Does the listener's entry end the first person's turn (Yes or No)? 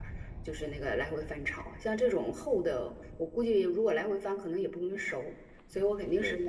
No